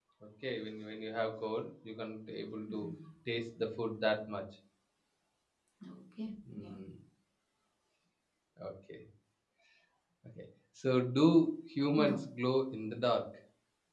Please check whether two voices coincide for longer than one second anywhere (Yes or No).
No